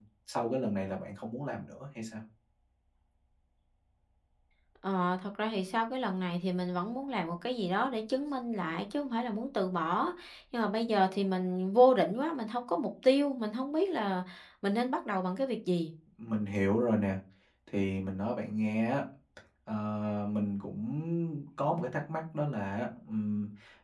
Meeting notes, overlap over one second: none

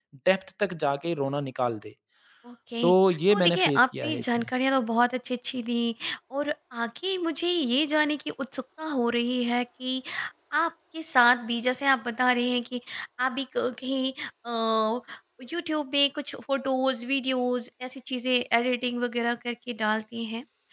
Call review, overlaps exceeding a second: present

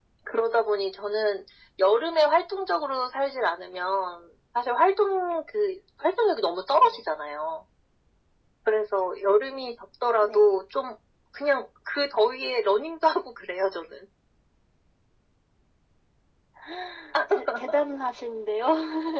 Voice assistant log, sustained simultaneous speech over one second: none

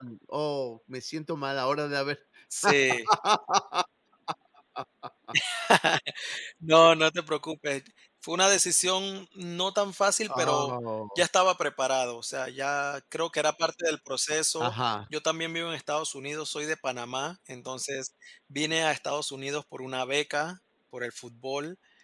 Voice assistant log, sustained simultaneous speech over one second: none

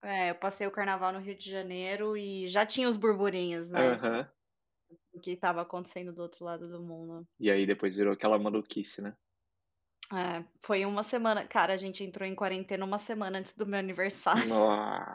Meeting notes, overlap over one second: none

